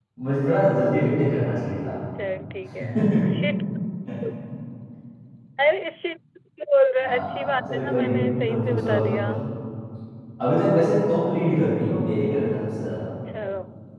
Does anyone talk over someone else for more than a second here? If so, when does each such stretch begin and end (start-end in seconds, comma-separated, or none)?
7.0-9.3